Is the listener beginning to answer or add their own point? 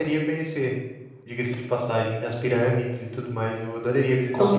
Yes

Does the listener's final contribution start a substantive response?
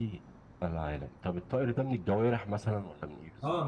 Yes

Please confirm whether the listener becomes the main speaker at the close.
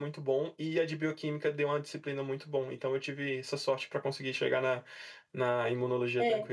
Yes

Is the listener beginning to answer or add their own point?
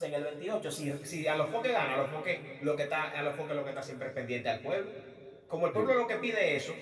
No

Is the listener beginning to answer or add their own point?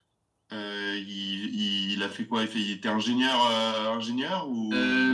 Yes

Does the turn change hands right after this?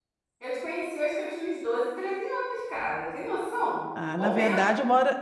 Yes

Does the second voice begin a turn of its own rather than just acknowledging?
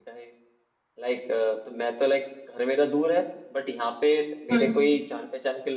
No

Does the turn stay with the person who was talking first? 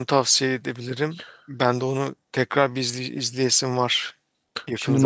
No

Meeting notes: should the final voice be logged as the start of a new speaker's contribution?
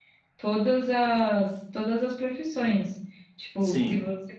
No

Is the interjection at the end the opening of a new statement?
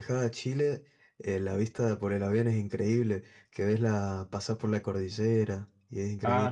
Yes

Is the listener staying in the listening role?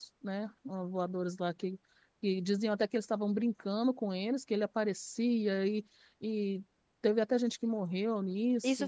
No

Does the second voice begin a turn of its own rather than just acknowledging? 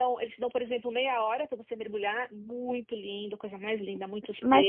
Yes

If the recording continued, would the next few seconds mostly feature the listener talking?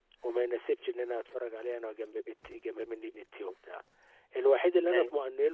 No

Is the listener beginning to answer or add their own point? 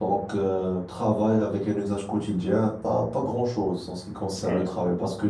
No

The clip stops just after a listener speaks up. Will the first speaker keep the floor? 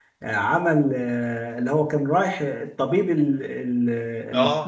No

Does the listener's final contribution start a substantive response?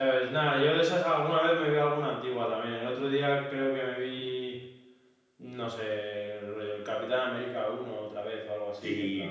Yes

